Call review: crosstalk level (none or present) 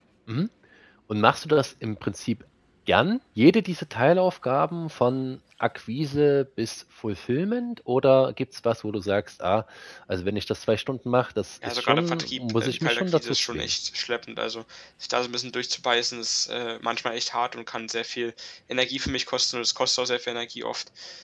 present